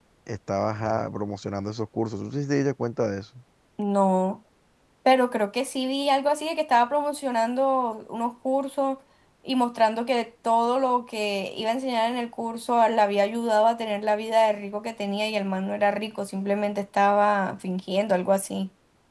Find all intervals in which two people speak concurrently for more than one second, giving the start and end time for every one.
none

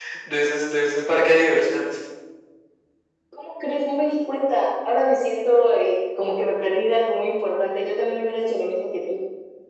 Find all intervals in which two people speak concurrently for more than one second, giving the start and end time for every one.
none

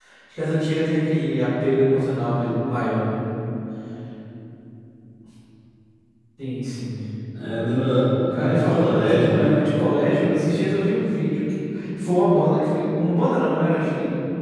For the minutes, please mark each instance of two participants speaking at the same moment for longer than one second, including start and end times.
8.3-9.6

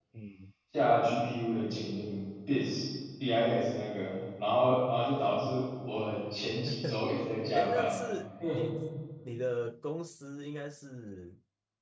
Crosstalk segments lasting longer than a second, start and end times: none

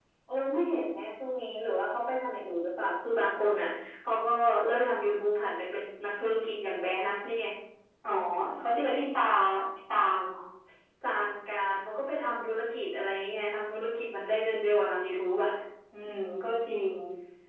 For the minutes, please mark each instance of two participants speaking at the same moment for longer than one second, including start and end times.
none

